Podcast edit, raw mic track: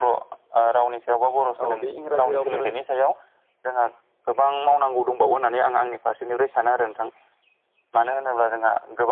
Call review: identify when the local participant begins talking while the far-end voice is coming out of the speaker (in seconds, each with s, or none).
1.6 s